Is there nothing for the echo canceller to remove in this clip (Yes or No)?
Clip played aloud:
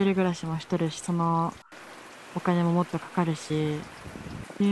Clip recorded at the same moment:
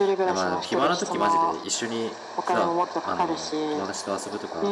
No